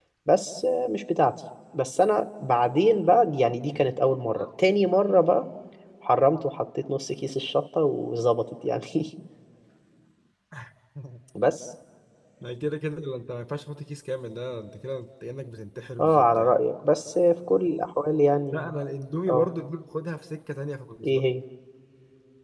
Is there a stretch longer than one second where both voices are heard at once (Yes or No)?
No